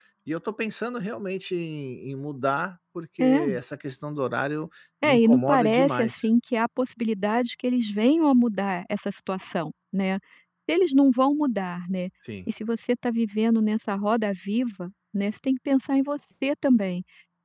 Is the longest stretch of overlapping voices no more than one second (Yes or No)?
No